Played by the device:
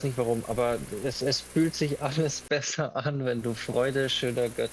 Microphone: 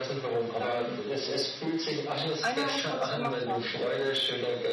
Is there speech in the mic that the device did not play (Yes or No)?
Yes